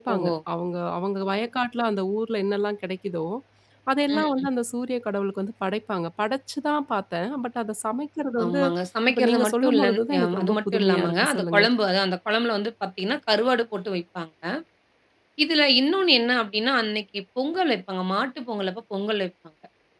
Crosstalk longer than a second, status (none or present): present